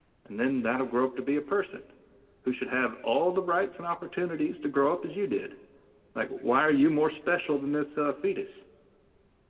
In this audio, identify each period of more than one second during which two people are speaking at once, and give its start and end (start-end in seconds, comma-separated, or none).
none